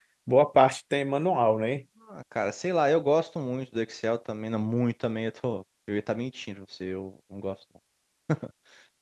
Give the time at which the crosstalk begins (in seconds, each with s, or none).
none